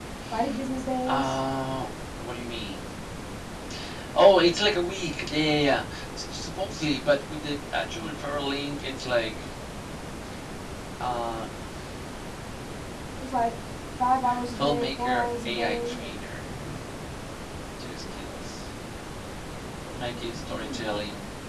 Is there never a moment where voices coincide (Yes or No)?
No